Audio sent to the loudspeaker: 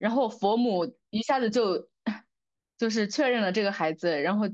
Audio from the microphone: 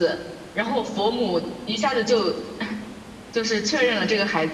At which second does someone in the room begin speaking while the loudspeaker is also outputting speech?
none

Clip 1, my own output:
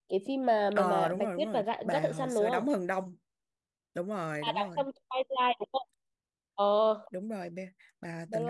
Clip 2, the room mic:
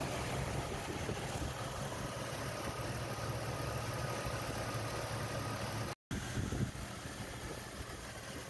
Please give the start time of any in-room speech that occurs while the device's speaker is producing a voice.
none

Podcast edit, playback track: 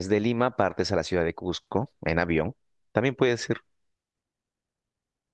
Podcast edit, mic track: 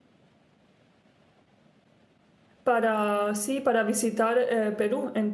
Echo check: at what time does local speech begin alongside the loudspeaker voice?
2.6 s

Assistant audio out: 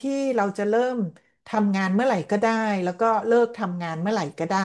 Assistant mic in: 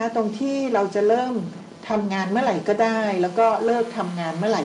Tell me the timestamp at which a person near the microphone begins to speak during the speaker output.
none

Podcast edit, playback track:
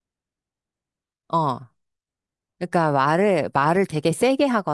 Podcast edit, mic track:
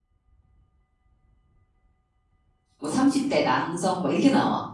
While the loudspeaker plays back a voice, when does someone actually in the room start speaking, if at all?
2.8 s

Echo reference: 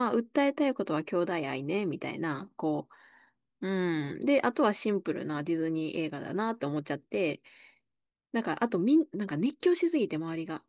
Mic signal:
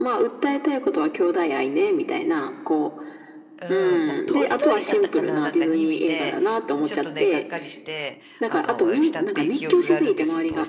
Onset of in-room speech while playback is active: 3.6 s

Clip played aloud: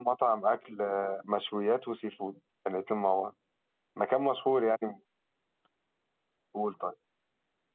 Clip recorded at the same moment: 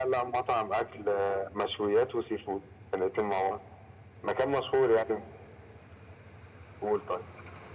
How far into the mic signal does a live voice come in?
none

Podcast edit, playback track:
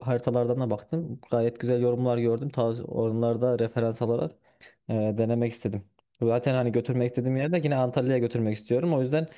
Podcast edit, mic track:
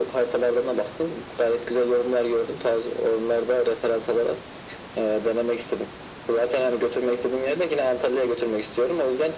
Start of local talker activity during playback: none

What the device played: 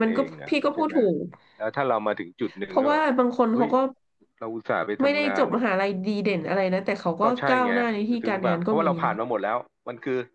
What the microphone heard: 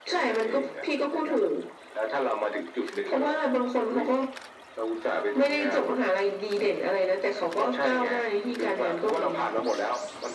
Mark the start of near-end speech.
none

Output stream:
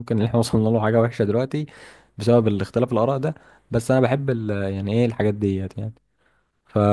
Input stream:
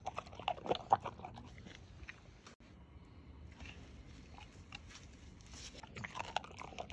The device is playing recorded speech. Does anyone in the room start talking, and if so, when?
none

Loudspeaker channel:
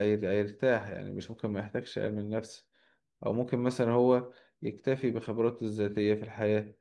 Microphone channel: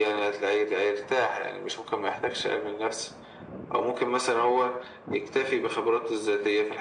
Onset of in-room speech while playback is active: none

